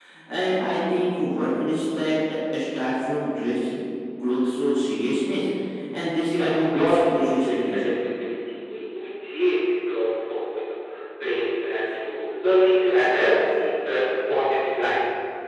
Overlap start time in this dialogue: 6 s

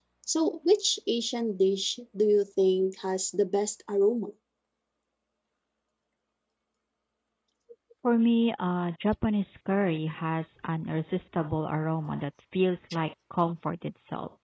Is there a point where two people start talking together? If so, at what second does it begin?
none

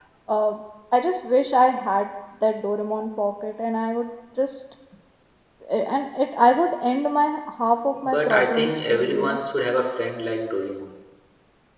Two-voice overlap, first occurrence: 8 s

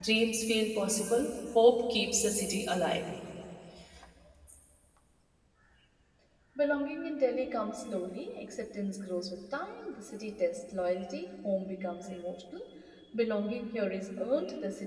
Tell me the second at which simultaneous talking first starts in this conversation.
none

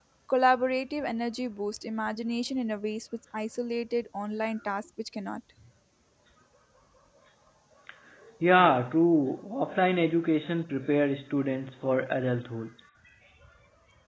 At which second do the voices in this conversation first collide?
none

